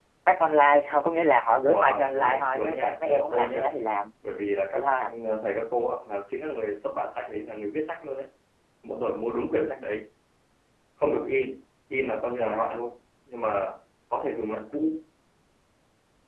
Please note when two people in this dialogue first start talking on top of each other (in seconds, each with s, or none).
1.7 s